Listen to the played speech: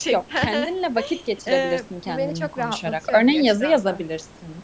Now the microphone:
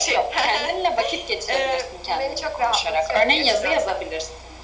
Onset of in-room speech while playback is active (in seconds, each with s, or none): none